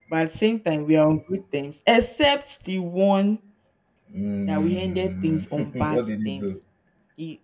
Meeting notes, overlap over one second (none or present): present